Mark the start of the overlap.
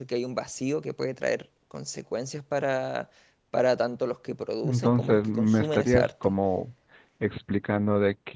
4.6 s

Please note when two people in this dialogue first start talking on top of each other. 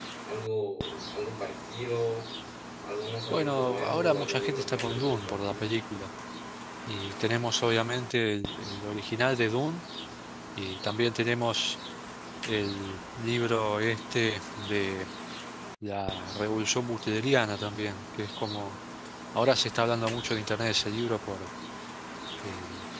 3.3 s

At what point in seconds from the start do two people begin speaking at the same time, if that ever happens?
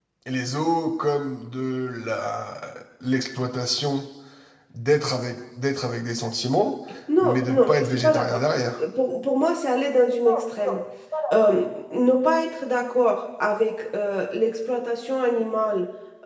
7.2 s

